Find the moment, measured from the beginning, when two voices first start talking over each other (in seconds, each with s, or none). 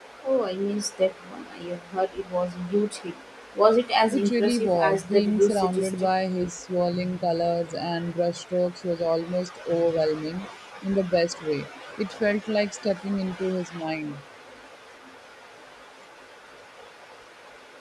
4.1 s